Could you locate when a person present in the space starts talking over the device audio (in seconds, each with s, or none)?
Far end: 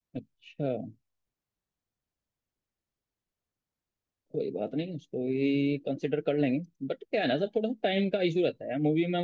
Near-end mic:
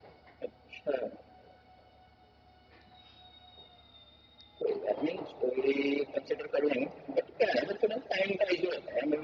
none